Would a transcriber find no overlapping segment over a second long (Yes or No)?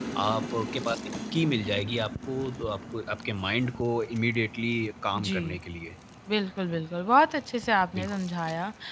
Yes